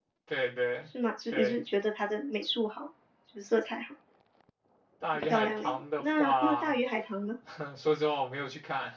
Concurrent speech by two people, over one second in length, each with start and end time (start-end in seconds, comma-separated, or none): 5.1-6.7